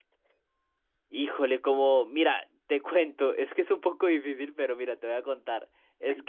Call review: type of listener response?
listening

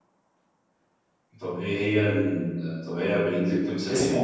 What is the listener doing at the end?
taking over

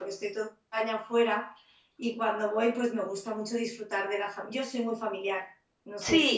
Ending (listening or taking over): taking over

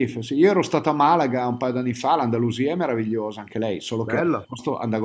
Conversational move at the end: listening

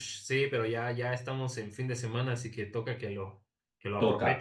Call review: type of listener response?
taking over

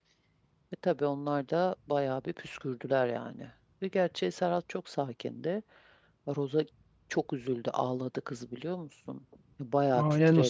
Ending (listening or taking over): taking over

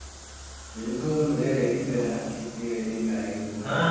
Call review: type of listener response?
taking over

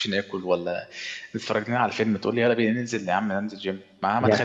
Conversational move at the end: listening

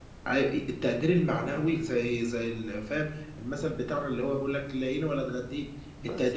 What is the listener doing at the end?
listening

